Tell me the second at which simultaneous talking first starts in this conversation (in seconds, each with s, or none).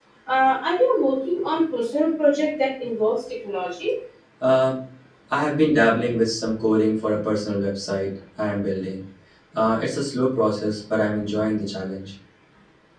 none